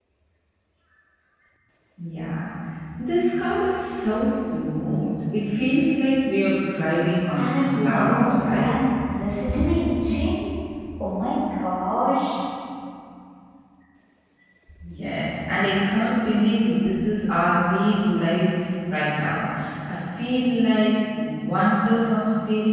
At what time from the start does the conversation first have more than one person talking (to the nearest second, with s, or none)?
7 s